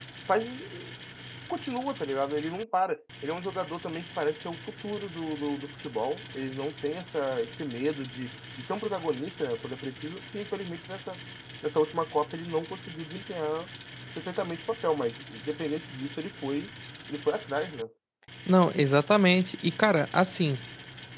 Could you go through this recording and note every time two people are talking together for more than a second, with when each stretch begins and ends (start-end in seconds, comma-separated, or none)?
none